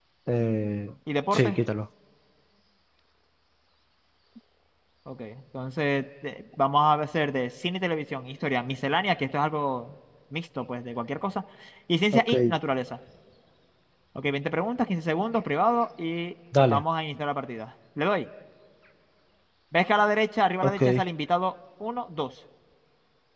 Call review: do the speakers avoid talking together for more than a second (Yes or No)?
Yes